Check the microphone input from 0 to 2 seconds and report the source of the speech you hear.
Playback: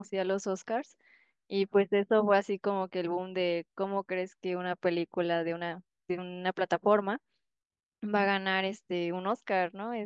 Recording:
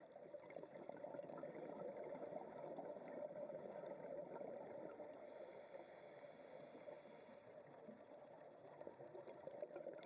neither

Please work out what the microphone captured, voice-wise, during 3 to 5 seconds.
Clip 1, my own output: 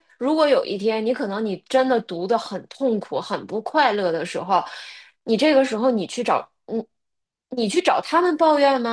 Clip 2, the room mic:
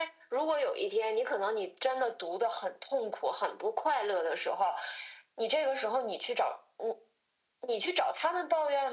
echo only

